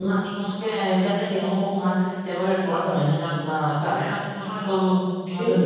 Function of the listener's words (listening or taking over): taking over